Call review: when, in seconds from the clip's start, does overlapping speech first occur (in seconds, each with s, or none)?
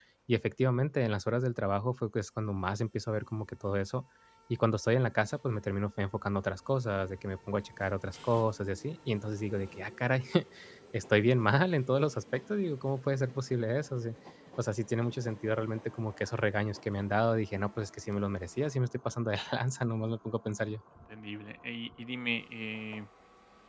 none